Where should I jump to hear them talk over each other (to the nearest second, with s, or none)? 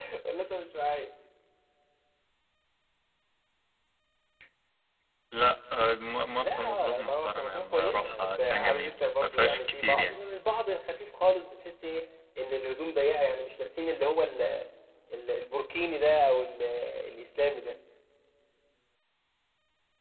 6 s